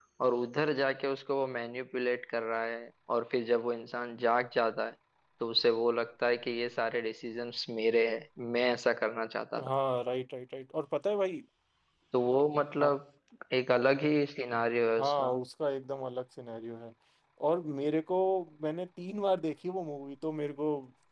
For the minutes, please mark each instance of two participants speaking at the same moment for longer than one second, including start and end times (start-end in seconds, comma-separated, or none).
none